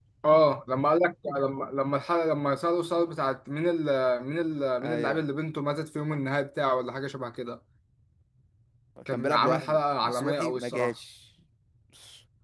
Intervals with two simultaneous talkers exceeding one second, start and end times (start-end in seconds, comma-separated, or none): 9.1-10.9